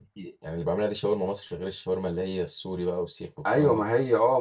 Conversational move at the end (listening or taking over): taking over